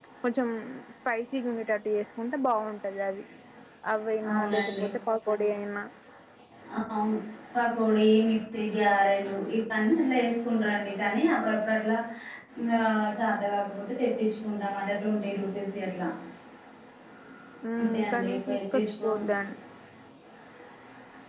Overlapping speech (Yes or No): Yes